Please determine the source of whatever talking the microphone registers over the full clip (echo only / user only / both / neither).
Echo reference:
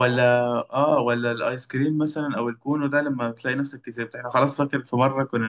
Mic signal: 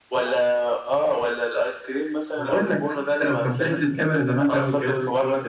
both